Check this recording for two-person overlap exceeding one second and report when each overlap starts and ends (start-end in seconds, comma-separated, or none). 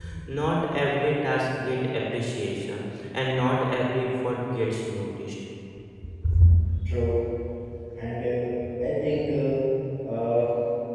none